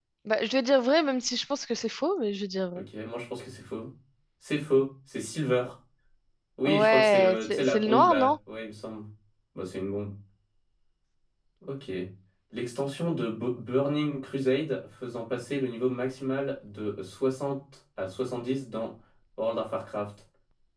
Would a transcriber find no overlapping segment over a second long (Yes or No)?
No